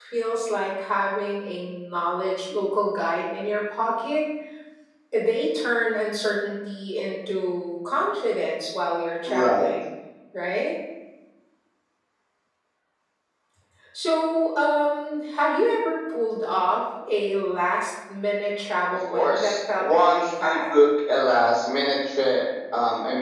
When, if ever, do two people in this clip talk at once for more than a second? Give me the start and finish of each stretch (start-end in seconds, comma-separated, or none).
19.1-20.6